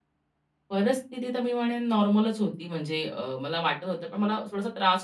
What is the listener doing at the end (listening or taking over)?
listening